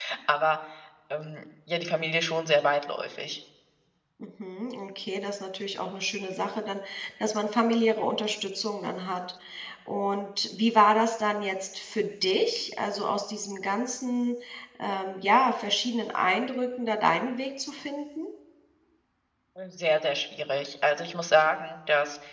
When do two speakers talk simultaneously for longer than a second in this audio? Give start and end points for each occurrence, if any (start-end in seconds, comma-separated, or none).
none